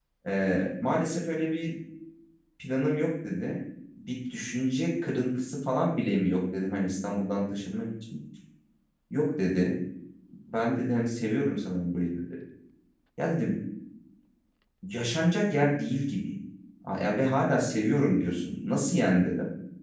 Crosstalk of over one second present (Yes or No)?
No